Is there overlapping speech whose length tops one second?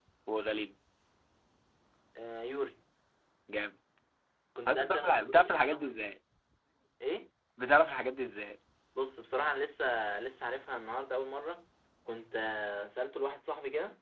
Yes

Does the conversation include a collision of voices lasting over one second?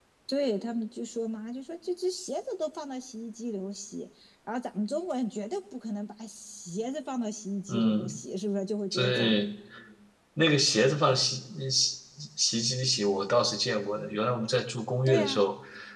No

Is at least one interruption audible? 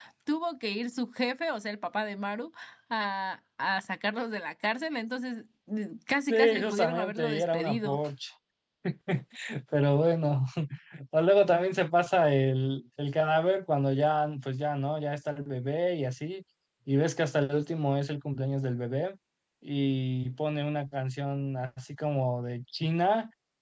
Yes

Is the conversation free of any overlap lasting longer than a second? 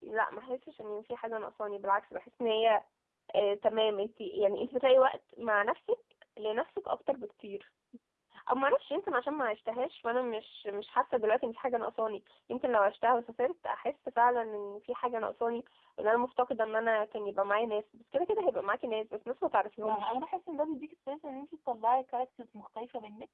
Yes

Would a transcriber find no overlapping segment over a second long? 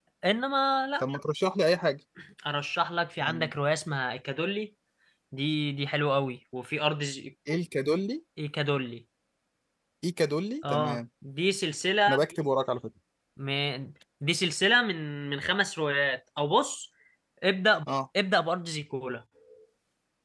Yes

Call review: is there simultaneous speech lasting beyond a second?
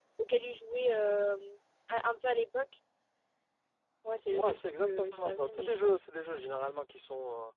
Yes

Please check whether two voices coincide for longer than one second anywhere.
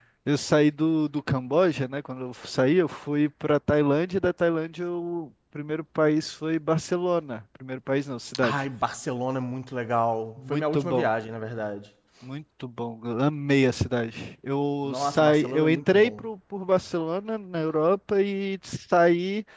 Yes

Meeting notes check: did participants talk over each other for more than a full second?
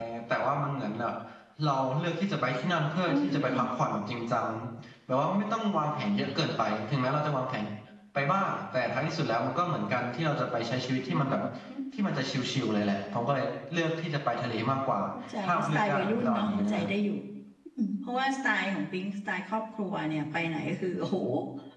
Yes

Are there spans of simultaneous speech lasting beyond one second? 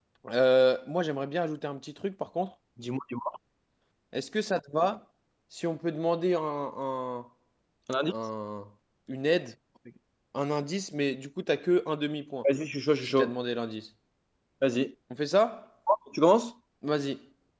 No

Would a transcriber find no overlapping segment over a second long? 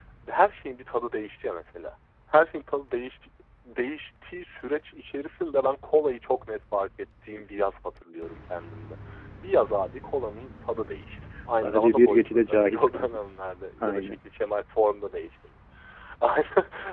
No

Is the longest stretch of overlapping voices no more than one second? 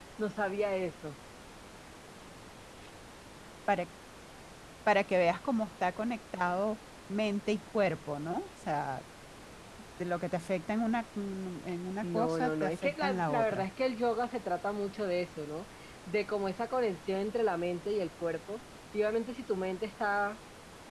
No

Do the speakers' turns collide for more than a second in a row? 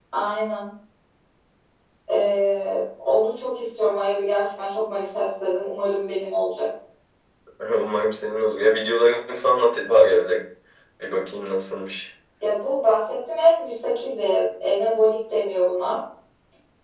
No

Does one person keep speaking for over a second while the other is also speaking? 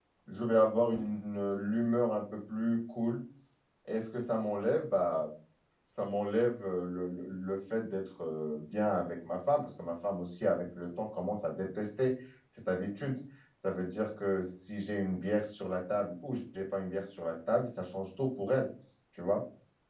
No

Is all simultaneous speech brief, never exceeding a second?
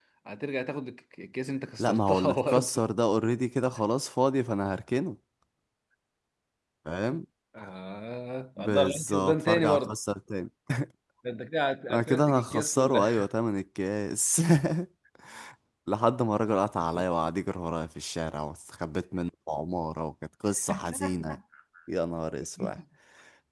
No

